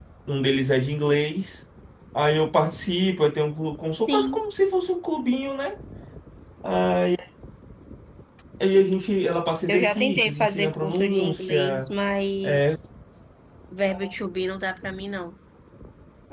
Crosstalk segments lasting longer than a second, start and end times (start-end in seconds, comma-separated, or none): 9.7-11.9